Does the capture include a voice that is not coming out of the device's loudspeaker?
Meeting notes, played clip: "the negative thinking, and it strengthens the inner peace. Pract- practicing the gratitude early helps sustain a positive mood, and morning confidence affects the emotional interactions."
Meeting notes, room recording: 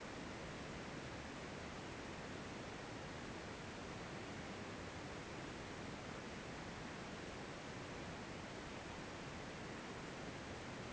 No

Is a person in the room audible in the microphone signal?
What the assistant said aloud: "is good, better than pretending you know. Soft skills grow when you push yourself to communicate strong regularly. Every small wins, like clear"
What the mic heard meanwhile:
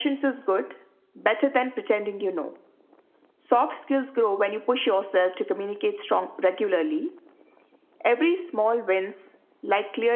No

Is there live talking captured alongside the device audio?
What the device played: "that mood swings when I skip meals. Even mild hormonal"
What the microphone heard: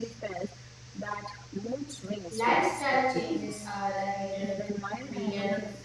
Yes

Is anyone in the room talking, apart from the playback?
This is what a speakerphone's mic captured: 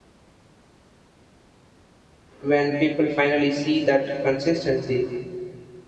Yes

